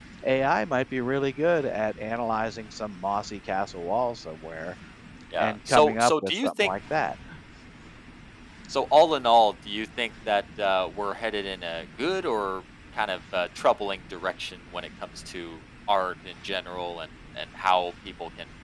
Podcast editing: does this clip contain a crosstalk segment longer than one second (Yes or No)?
Yes